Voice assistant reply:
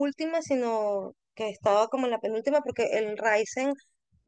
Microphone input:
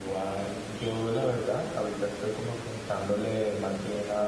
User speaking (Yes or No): Yes